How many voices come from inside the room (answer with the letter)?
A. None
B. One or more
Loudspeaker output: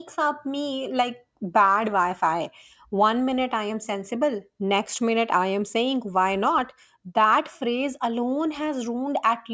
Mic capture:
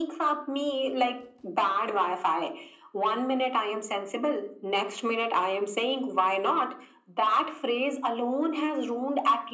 A